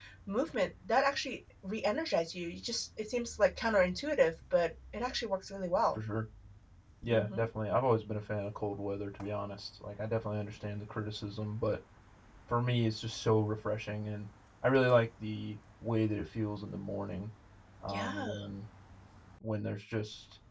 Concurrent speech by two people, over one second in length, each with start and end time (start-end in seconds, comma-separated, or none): none